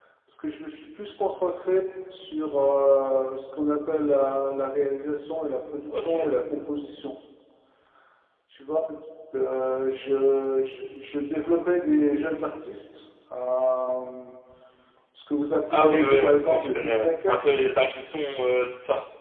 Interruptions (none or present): present